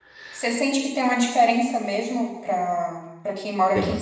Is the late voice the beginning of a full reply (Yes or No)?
No